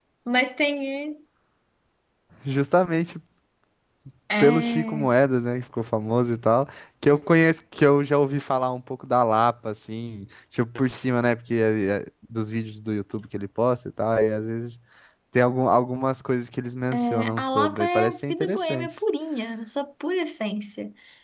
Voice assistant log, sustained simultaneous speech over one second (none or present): present